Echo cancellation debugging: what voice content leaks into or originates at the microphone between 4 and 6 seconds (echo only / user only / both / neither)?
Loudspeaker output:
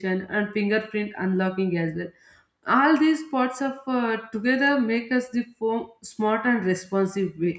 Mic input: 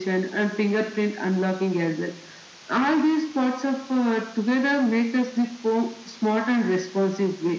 echo only